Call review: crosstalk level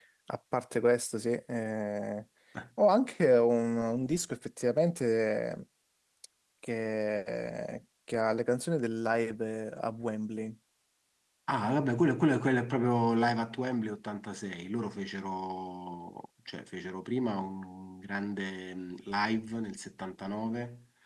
none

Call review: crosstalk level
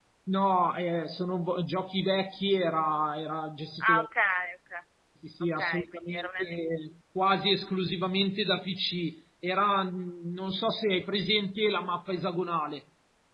present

